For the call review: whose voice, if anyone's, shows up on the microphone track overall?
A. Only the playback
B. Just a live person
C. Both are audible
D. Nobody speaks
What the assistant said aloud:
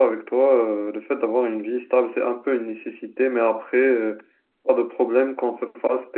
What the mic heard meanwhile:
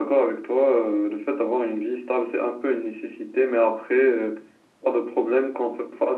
A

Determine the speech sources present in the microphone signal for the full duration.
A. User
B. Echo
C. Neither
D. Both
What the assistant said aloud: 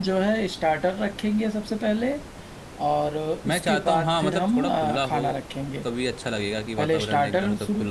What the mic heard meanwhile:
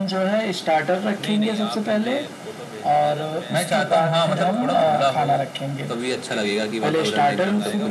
D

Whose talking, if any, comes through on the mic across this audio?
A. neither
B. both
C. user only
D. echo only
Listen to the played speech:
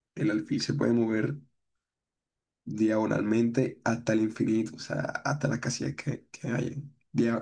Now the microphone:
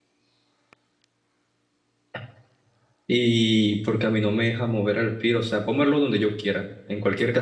C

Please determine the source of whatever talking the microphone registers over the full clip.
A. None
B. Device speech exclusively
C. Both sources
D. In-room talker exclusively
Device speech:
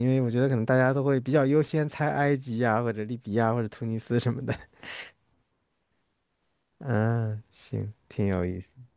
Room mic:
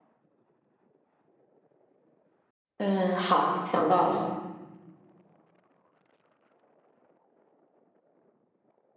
D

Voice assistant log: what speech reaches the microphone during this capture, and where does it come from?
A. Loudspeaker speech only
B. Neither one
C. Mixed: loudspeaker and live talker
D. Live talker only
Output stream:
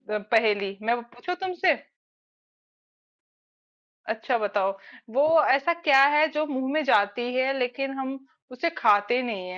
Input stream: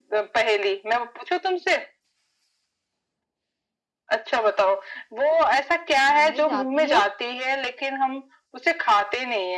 C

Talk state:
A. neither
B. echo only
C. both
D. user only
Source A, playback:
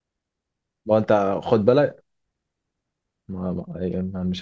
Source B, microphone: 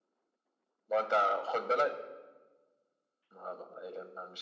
B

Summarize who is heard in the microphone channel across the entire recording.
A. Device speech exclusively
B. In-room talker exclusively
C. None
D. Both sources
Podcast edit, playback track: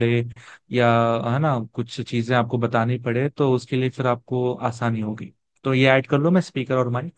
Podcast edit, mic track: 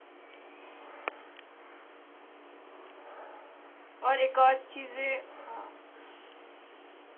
B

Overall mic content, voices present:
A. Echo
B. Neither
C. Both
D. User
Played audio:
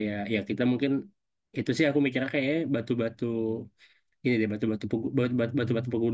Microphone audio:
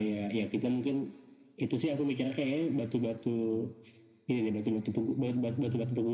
A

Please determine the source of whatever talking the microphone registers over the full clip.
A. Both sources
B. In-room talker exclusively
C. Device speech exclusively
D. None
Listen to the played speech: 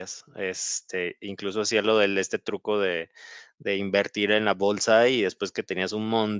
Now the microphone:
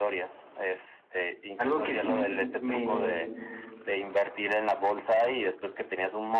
A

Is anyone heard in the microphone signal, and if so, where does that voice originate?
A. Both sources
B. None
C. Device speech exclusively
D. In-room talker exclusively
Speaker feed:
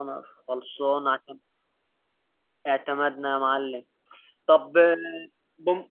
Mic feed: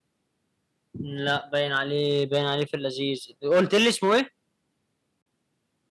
D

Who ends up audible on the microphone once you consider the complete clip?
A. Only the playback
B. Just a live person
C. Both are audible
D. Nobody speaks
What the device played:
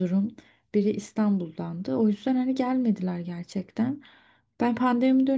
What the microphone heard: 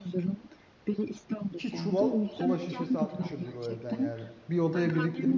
C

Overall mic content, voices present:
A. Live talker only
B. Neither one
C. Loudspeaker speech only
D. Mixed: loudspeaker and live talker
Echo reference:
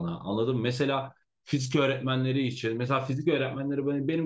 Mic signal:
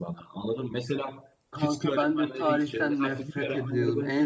D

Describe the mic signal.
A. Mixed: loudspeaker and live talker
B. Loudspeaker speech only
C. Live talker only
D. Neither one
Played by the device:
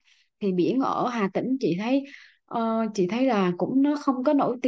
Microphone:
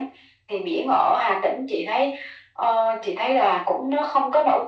B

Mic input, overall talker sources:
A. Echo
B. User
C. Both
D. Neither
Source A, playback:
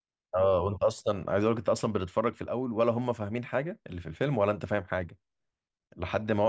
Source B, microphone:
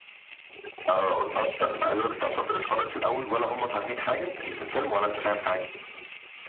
A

